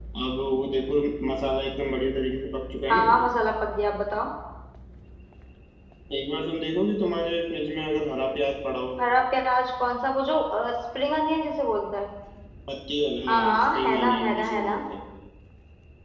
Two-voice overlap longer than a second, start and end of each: 13.3-14.8

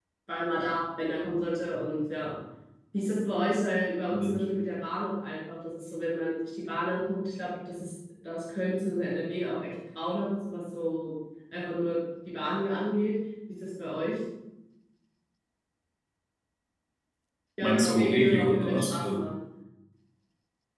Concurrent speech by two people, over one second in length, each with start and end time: 17.6-19.2

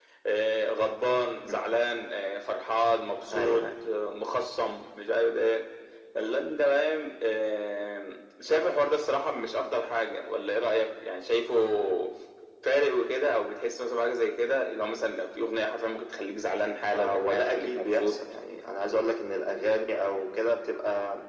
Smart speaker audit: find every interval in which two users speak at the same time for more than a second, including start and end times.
16.9-18.2

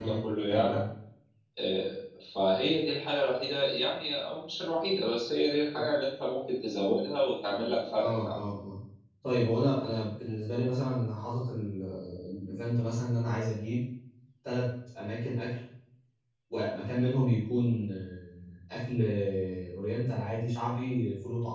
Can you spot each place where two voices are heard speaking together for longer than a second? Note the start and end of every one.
none

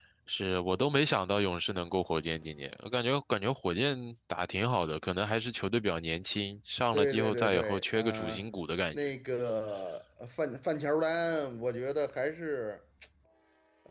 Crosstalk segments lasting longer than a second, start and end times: 6.9-8.4

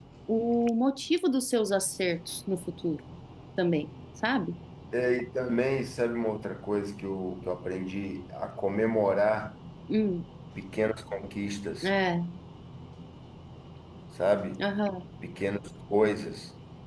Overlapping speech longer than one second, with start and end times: none

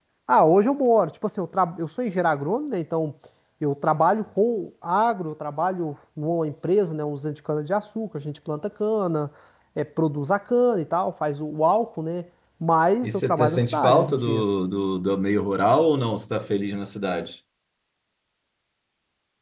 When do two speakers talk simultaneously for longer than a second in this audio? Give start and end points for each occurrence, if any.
13.0-14.4

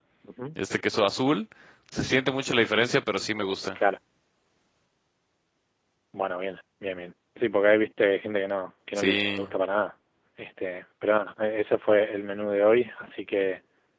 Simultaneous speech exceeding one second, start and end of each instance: none

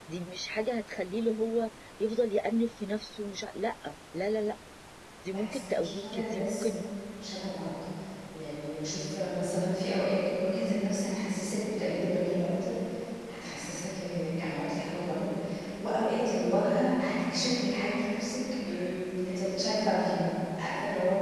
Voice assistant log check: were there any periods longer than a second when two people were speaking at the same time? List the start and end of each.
5.3-6.6

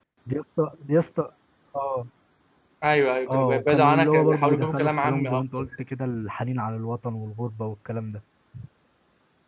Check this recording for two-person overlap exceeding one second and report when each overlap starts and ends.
3.3-5.7

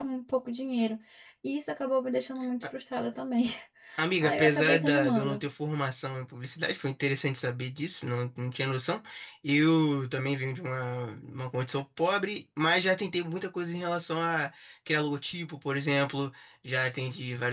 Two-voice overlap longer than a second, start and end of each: 4.2-5.5

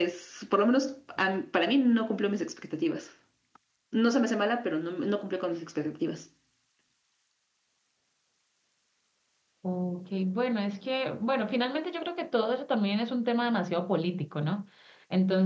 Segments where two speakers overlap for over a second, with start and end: none

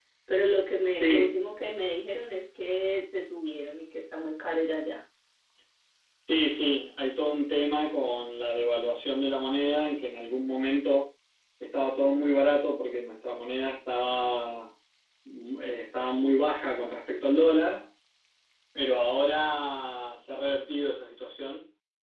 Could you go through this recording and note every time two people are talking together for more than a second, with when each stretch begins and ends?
none

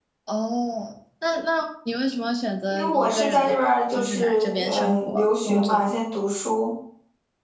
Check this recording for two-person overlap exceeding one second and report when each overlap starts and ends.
2.7-6.0

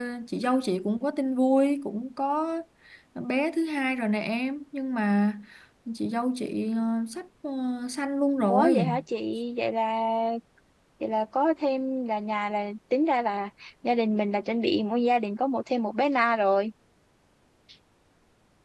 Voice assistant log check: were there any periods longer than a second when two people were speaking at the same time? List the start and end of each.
none

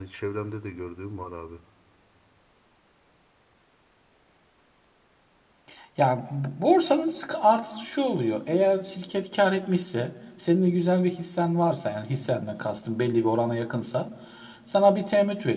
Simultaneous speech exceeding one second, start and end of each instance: none

